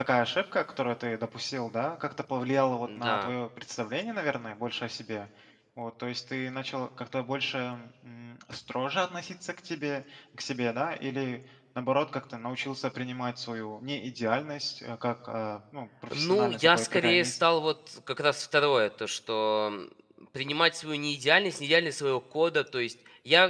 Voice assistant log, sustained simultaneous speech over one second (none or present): present